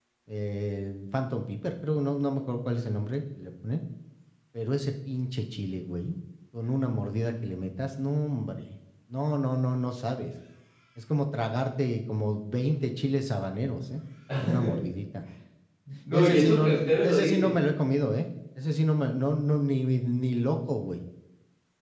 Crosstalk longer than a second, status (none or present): present